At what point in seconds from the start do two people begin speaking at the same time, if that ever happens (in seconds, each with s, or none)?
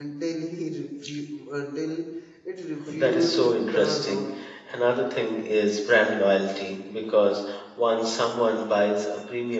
3.0 s